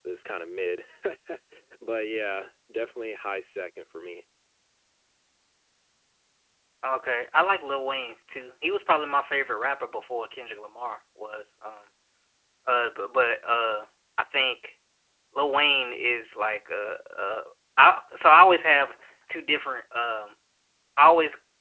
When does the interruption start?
none

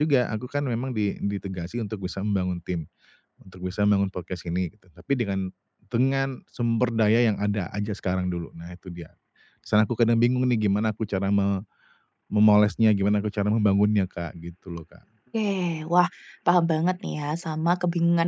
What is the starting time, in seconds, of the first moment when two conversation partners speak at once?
none

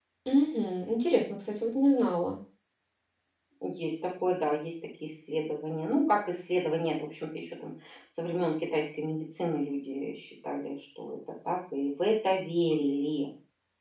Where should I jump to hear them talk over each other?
none

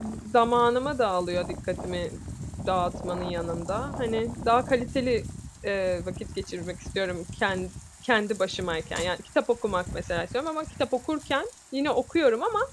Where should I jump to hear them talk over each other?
none

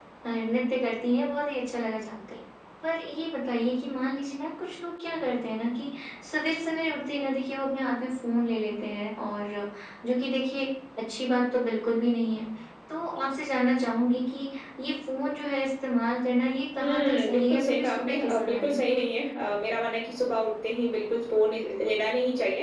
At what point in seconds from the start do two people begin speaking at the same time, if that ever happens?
17 s

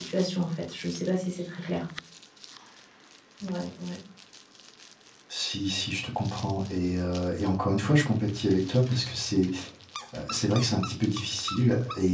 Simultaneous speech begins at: none

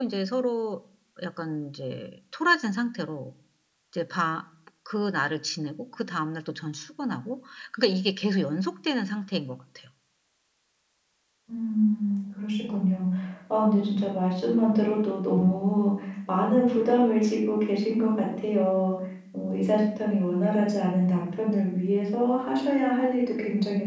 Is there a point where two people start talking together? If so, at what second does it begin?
none

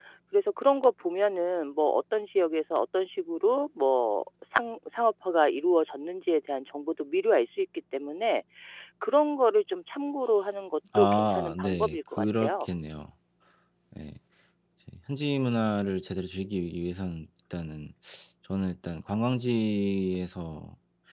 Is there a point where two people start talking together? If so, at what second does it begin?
11 s

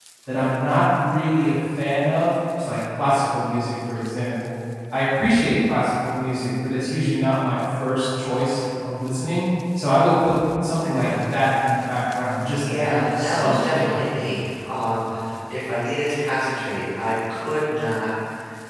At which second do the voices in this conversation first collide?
13 s

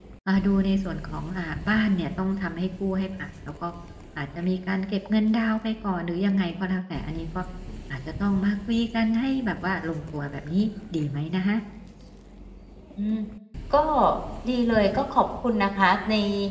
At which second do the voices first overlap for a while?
none

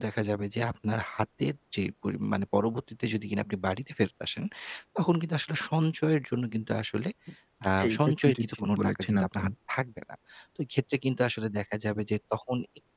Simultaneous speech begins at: 8 s

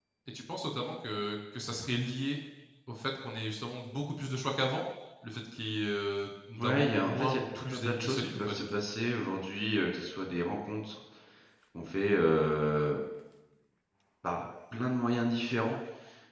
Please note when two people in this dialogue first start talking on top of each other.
7 s

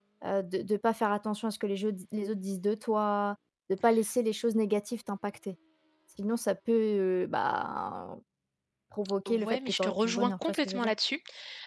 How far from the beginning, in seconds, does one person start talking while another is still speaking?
9 s

